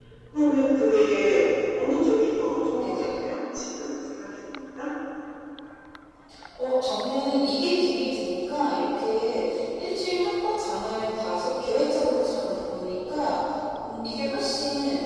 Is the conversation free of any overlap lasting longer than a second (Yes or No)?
Yes